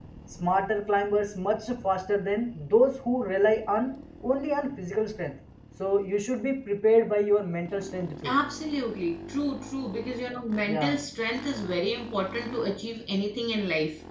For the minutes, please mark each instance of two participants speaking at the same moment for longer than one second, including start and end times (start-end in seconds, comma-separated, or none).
none